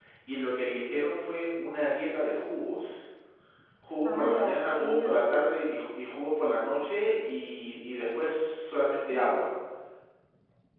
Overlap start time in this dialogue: 4.0 s

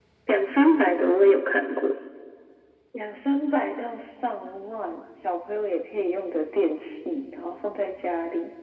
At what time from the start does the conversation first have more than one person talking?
none

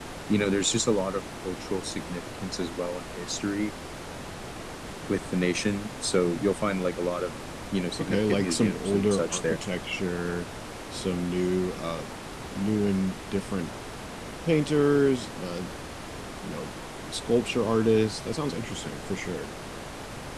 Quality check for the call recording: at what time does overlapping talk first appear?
8.0 s

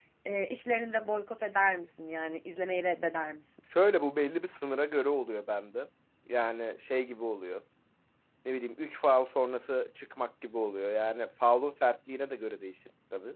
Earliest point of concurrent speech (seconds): none

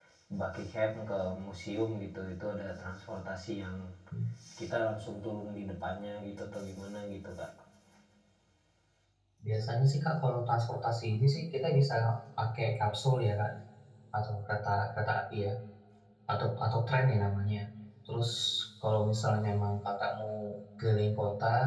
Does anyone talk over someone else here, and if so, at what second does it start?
none

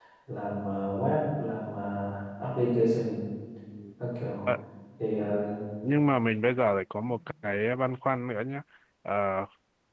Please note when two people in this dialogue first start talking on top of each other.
none

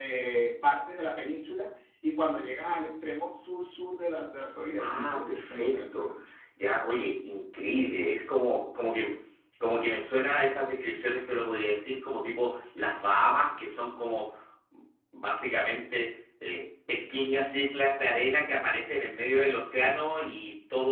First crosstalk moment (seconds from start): 4.8 s

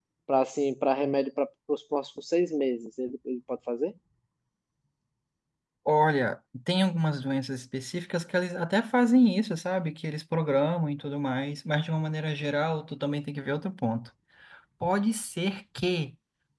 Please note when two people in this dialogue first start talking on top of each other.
none

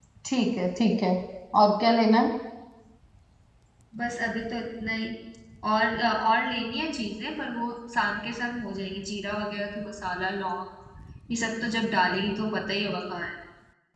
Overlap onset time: none

